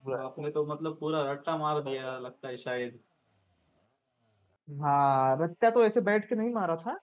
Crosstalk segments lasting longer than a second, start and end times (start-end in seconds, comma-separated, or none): none